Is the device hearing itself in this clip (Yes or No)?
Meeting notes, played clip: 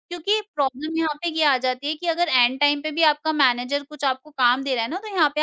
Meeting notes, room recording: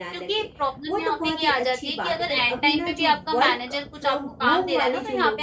Yes